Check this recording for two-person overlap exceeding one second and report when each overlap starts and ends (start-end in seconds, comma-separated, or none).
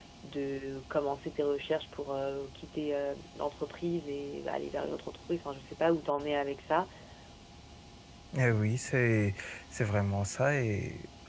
none